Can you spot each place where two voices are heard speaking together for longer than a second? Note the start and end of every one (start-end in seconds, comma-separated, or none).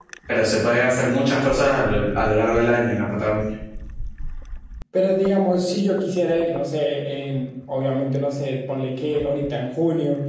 none